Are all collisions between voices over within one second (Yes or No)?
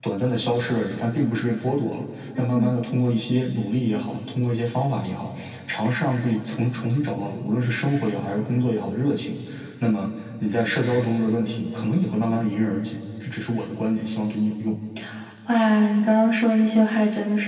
Yes